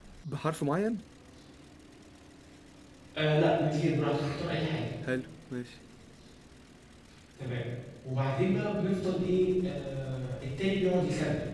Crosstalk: none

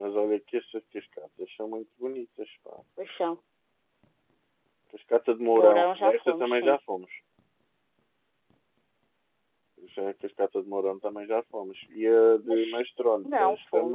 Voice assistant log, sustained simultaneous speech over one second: present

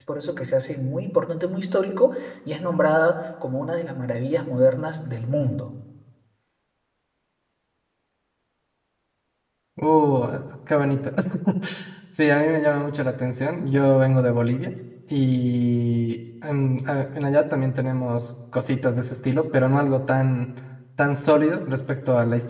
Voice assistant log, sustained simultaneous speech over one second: none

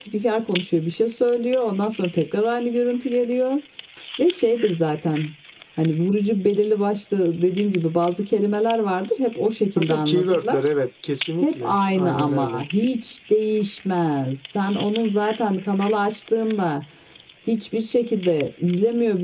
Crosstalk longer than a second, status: present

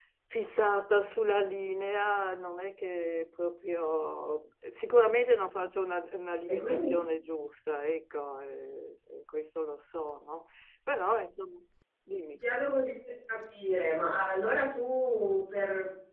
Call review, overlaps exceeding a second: none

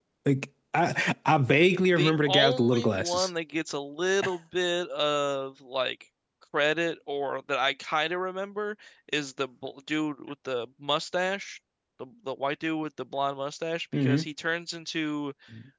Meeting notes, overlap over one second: present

